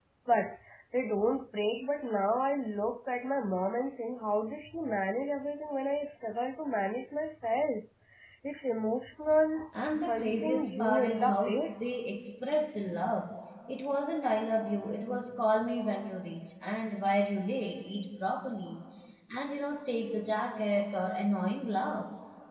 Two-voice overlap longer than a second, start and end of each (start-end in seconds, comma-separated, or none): 10.1-11.6